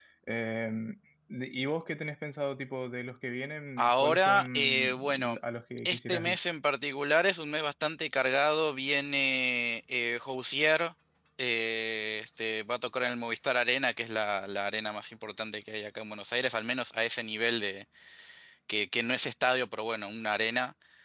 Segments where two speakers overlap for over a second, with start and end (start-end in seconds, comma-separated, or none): 3.8-5.3